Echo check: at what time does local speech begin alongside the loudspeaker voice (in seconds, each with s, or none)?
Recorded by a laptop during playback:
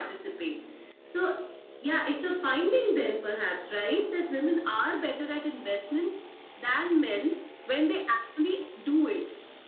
none